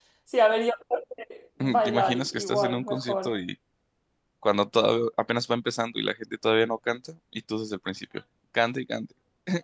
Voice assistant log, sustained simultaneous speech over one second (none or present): present